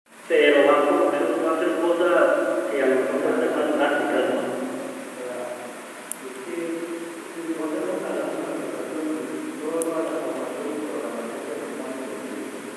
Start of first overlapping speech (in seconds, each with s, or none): 3.1 s